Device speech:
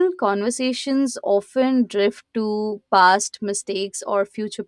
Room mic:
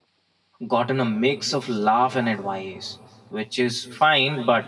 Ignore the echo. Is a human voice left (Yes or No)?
Yes